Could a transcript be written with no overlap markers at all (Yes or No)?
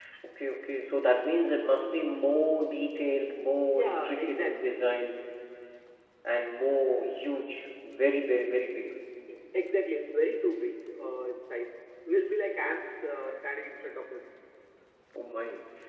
No